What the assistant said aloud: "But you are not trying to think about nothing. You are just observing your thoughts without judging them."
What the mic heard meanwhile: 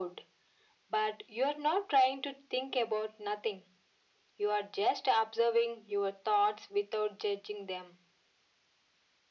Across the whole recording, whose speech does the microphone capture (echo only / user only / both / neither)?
echo only